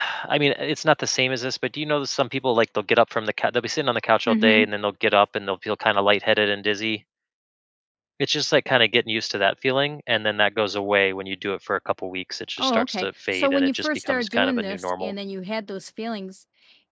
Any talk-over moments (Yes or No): Yes